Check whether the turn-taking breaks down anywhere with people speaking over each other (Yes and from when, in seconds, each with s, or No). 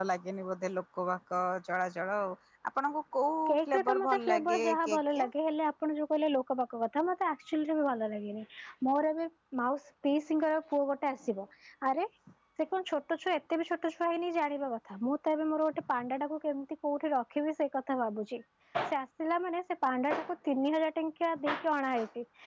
Yes, from 3.5 s